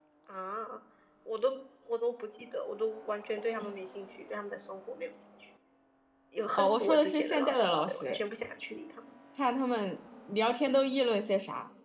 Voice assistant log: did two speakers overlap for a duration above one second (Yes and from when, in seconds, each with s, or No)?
Yes, from 6.5 s